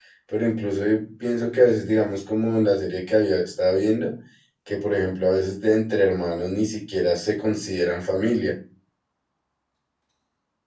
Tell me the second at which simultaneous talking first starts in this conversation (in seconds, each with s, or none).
none